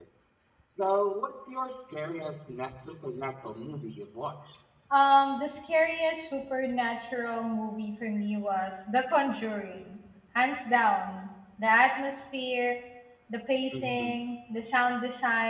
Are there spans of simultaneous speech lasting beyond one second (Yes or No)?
No